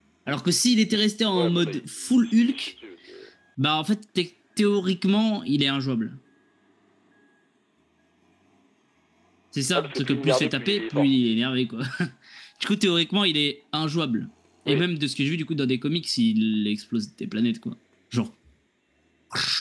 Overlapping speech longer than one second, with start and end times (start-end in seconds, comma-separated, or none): 1.4-2.7, 9.8-11.1